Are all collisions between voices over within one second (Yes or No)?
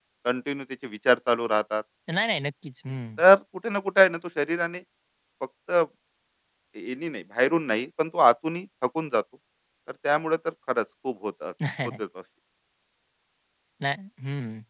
Yes